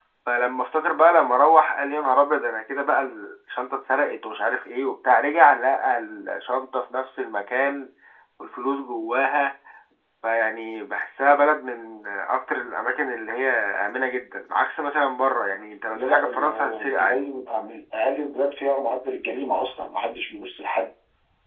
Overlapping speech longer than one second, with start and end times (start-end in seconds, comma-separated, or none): 15.9-17.2